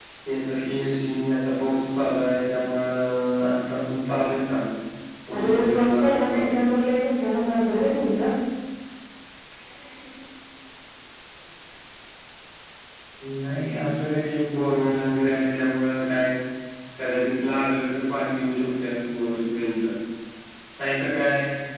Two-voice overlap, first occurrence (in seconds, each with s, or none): 5.4 s